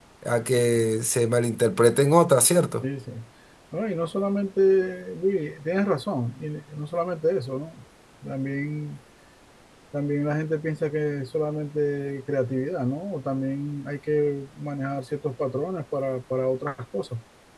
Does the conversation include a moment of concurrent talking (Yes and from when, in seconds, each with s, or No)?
No